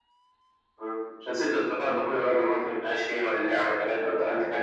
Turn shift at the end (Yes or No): Yes